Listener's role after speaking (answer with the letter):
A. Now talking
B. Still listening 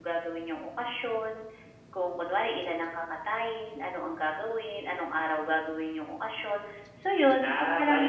A